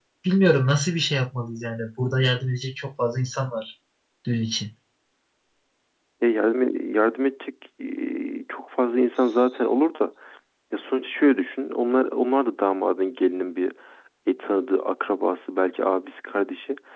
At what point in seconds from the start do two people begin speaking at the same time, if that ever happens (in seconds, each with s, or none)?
none